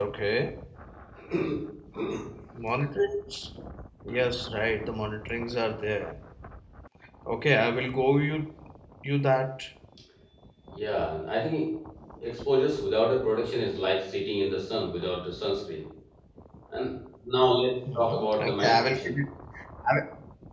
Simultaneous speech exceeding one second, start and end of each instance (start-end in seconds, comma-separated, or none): 17.9-19.2